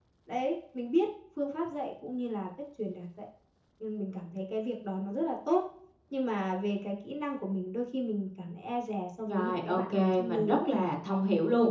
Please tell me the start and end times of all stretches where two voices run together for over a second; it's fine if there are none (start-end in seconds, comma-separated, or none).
9.3-10.7